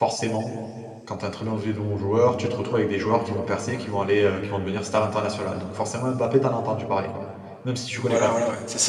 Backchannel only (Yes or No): No